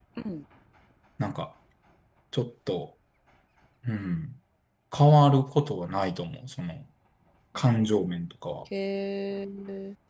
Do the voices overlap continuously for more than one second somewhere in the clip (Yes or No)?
No